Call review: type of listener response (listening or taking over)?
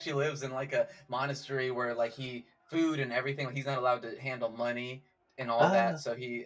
listening